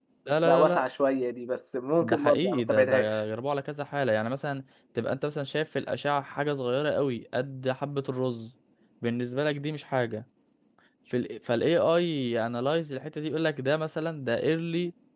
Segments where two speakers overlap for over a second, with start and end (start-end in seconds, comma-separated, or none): 2.0-3.2